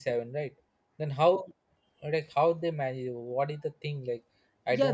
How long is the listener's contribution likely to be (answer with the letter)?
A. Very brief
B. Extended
B